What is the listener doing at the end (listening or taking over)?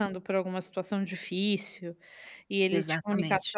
listening